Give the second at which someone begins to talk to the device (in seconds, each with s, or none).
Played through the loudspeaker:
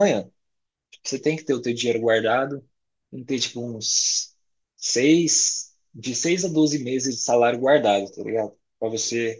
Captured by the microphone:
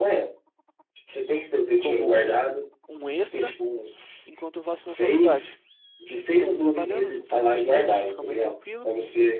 1.7 s